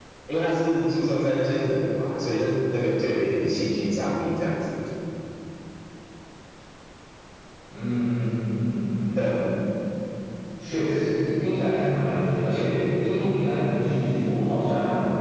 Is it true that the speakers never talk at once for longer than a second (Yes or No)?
Yes